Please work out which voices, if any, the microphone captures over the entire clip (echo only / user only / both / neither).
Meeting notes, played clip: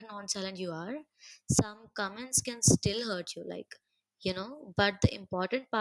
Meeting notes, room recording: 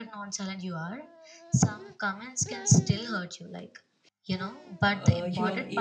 both